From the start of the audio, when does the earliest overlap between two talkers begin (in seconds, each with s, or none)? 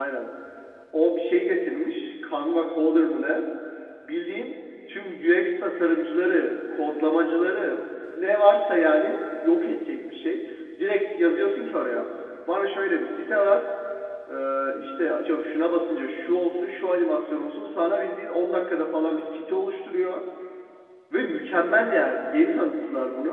none